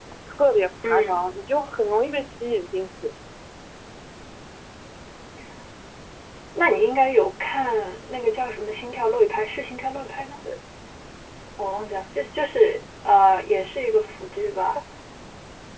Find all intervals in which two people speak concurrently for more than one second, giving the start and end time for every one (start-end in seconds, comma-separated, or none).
none